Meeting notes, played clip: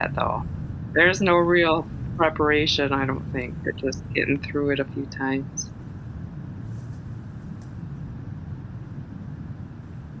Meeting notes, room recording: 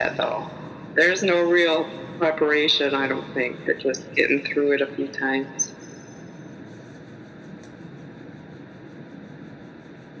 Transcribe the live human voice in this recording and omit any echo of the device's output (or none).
none